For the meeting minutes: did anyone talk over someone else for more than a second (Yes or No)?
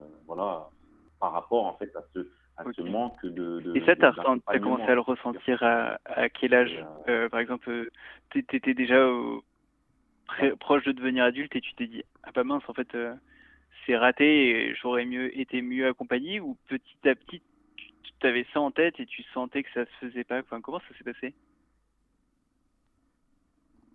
Yes